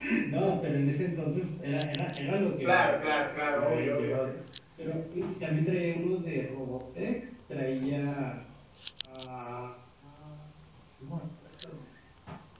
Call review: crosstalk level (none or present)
present